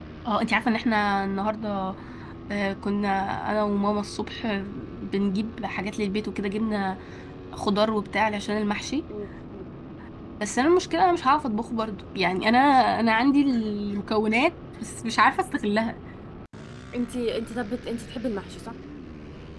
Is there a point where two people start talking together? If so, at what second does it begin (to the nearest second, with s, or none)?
none